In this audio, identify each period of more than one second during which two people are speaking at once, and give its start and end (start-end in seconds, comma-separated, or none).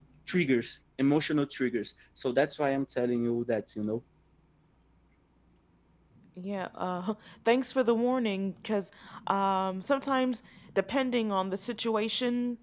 none